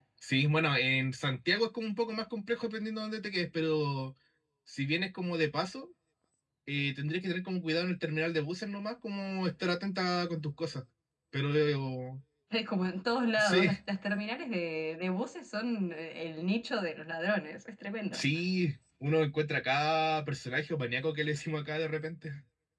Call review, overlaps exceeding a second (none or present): none